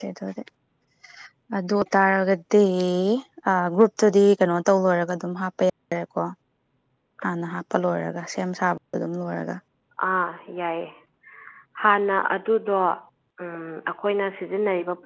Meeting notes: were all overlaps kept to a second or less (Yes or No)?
Yes